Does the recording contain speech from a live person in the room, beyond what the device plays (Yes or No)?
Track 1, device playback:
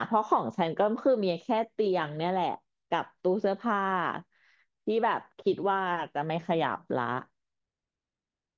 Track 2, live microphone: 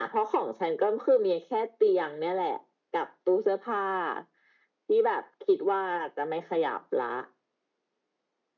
No